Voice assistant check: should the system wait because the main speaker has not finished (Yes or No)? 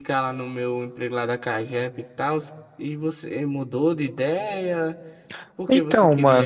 Yes